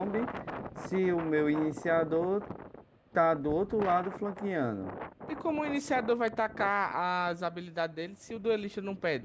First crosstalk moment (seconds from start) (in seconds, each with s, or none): none